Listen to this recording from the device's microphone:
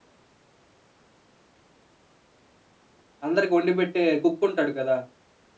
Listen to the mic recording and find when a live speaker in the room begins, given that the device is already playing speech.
3.3 s

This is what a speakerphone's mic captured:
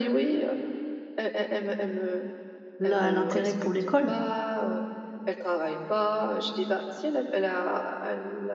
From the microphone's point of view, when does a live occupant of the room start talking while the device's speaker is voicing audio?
2.8 s

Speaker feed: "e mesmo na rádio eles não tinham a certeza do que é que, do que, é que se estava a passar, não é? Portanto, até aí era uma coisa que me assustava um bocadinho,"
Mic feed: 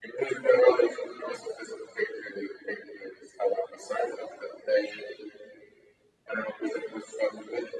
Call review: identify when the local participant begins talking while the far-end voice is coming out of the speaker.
none

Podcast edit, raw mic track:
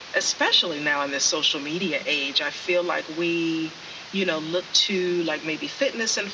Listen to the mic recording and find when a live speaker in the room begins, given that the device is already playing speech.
none

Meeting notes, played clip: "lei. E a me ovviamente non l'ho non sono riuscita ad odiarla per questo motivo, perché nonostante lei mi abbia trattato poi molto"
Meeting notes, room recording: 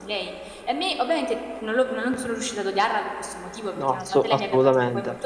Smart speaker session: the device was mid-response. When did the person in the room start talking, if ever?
3.8 s

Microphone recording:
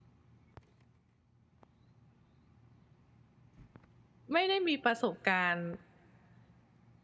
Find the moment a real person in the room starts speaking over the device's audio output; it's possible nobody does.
4.3 s

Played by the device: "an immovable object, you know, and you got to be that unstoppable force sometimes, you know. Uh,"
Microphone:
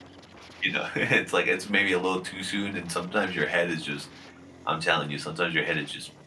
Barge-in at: 0.6 s

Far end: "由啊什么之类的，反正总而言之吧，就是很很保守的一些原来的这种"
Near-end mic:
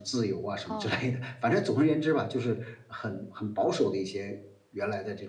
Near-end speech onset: 0.6 s

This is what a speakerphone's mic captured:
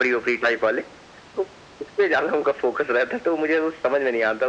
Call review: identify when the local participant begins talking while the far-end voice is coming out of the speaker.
none

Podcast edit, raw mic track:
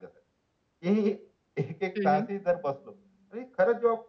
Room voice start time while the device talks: 2.0 s

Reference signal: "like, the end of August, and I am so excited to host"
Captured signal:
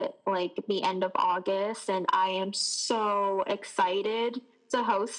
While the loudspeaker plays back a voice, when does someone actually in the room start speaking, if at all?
none

